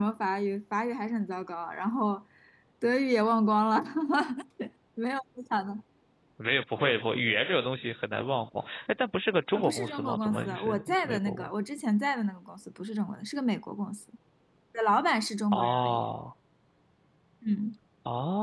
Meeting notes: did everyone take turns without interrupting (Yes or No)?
No